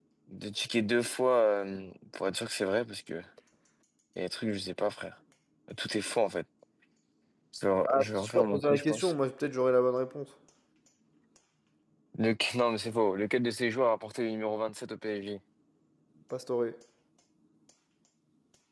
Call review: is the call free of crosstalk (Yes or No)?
No